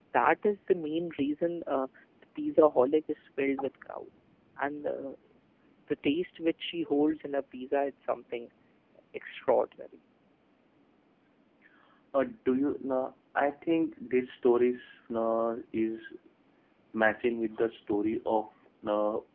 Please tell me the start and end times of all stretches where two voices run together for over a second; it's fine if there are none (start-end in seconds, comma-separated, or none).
none